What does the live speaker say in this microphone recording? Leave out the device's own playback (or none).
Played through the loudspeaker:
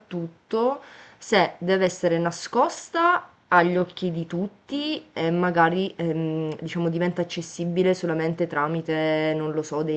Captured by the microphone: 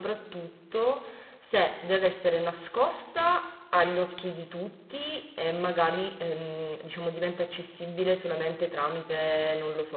none